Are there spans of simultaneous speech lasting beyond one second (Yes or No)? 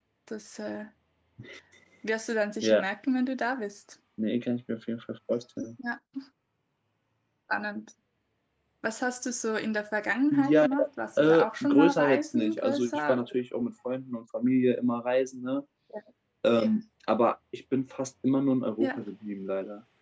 Yes